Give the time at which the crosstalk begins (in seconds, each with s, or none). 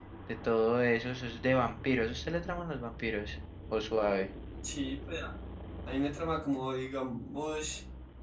none